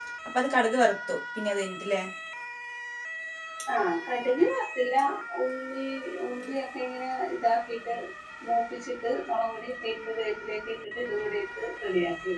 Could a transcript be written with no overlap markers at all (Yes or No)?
Yes